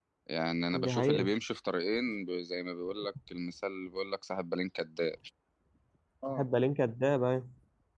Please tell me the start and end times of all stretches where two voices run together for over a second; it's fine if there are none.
none

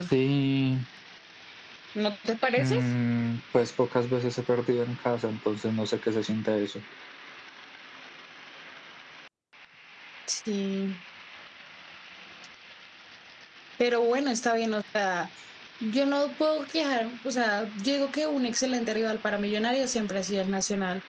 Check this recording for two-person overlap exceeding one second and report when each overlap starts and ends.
none

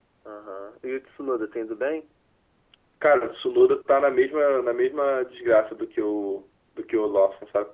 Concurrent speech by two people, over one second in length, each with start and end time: none

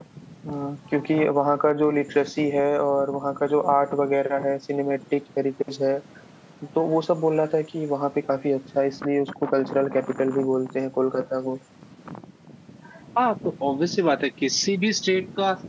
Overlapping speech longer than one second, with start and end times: none

